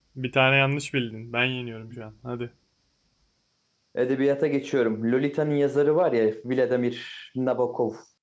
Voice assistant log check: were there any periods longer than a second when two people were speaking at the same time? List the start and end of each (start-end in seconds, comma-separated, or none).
none